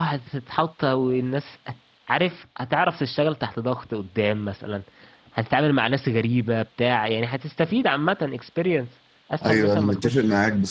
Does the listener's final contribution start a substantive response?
Yes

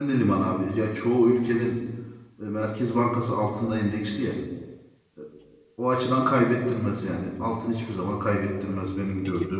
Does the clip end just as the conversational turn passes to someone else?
Yes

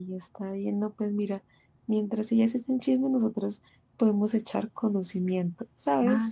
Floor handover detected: Yes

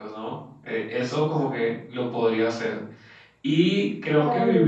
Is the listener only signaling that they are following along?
Yes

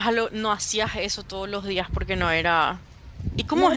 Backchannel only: No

